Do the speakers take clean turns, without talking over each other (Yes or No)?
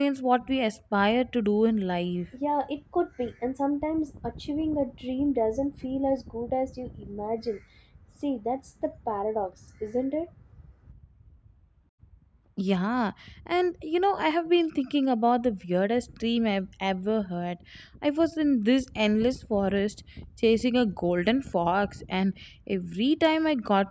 Yes